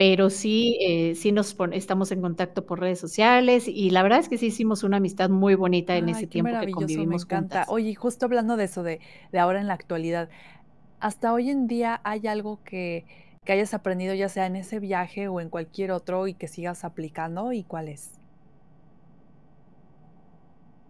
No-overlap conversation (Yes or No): No